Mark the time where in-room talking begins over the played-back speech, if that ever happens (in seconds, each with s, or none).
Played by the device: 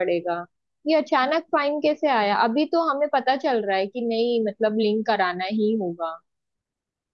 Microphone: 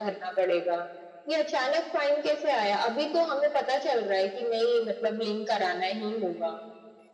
none